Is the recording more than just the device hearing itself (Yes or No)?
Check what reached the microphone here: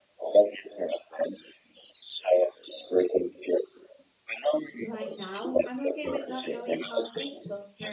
Yes